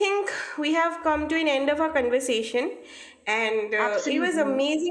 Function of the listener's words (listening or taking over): listening